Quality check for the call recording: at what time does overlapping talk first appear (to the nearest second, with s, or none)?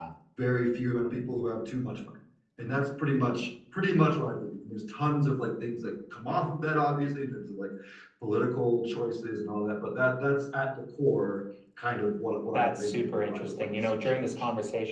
13 s